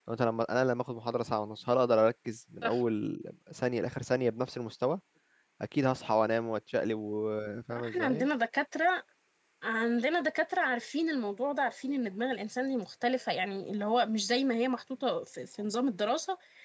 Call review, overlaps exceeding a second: none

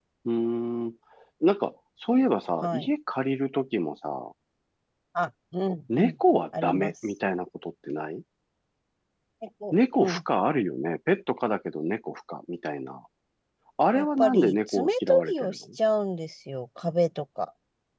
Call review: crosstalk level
present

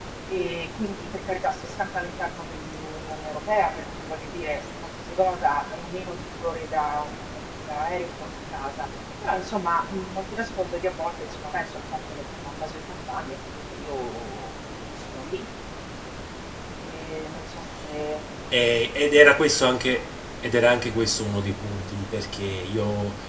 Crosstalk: none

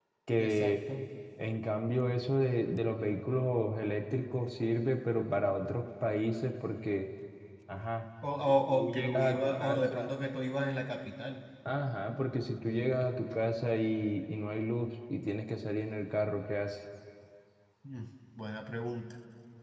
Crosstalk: present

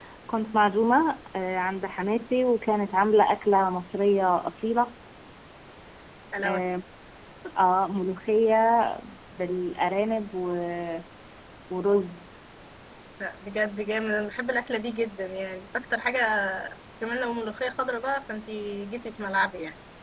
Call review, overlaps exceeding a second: none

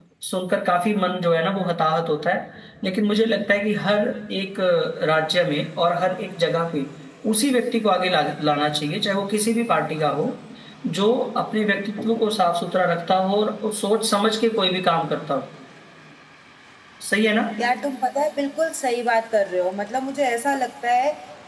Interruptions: none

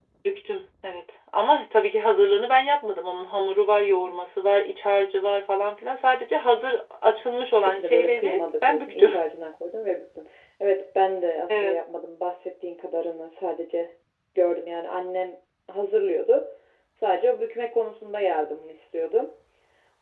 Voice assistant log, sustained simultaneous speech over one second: present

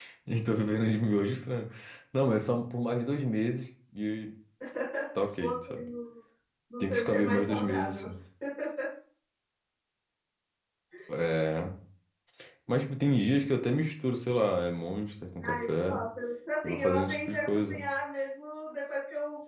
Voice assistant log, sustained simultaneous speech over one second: present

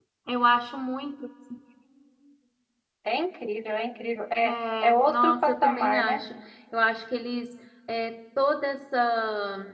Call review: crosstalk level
present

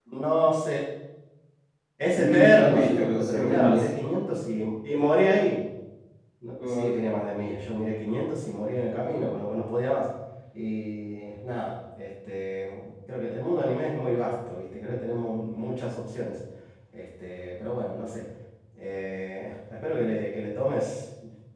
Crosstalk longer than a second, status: present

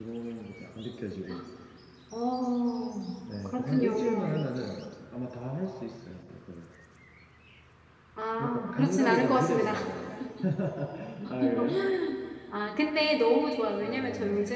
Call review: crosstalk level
present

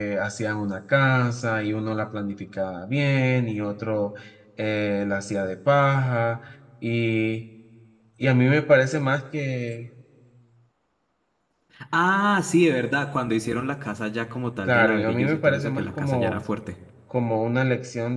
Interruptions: present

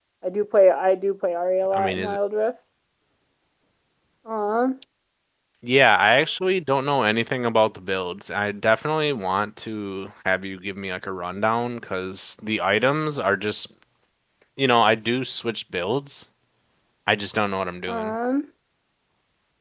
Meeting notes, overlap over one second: none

